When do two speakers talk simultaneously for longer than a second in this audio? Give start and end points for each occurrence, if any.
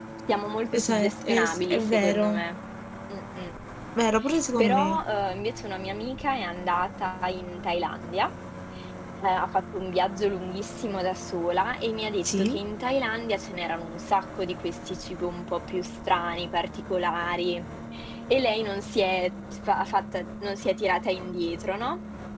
0.8-2.3

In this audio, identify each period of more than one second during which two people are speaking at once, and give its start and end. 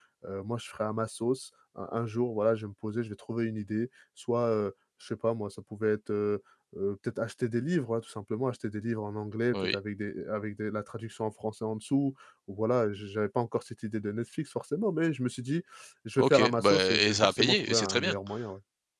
16.2-18.1

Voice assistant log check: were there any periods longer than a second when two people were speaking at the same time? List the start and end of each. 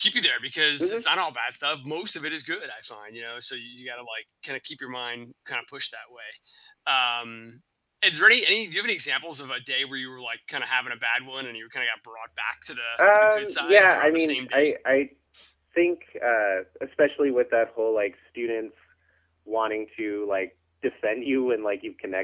13.0-14.7

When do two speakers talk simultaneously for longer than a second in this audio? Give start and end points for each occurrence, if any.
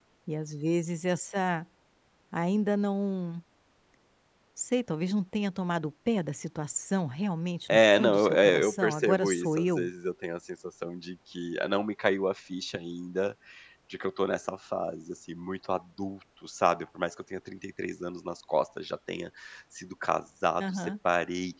7.7-9.9

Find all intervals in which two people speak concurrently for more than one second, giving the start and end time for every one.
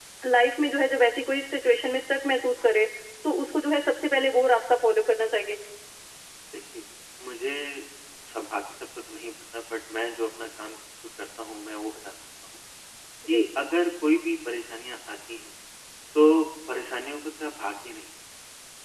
none

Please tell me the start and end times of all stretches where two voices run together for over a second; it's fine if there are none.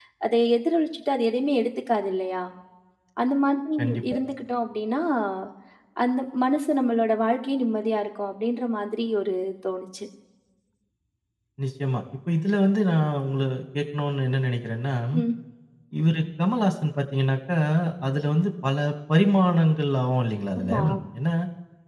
none

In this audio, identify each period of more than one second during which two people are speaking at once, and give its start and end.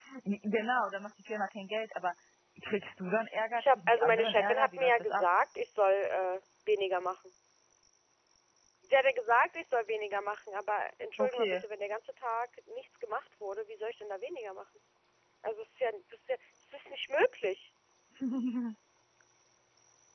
3.5-5.2

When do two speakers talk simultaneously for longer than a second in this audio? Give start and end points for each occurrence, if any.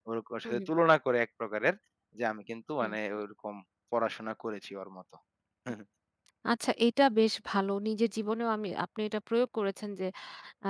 none

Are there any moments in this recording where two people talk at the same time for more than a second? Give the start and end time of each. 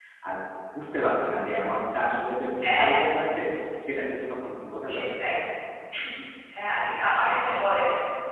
none

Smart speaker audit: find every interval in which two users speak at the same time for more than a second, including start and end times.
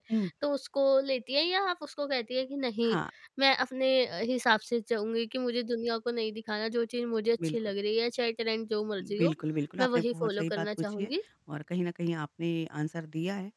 9.8-11.1

